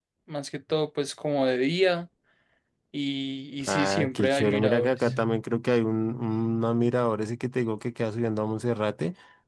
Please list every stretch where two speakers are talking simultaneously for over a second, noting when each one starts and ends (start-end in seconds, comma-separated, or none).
3.7-5.0